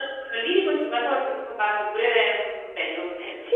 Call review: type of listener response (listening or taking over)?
taking over